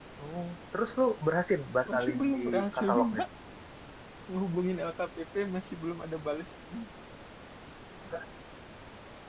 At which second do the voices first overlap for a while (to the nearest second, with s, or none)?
2 s